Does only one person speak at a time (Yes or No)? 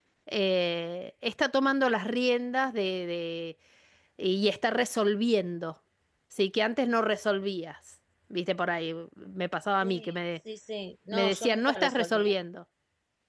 No